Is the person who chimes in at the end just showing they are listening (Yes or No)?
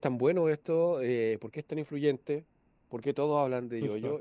Yes